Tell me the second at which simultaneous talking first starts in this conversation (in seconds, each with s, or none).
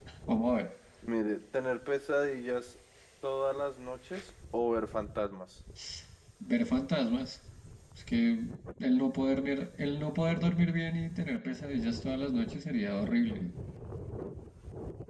none